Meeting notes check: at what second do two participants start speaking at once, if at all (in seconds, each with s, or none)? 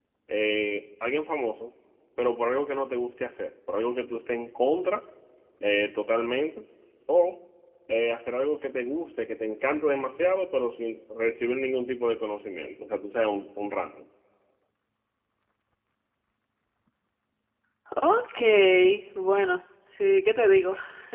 none